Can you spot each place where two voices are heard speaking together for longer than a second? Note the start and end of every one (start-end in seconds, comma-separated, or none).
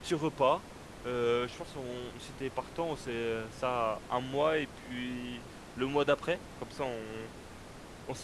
none